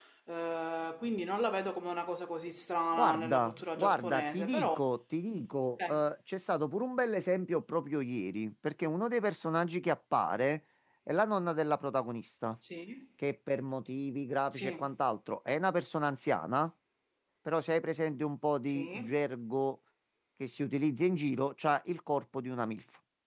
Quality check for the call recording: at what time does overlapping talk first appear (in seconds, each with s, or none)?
2.9 s